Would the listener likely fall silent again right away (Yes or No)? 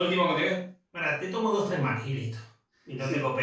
No